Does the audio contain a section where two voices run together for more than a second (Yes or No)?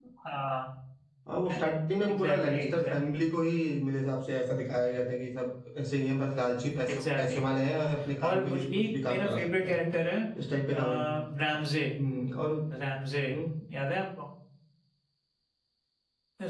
Yes